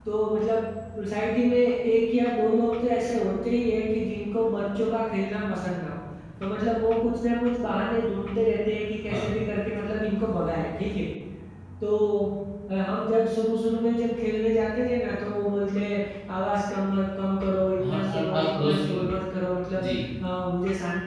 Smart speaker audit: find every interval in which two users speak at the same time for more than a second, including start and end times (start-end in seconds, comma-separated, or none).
17.8-19.0